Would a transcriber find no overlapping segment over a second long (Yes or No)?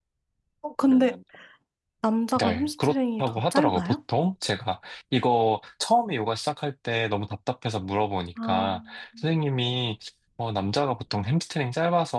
No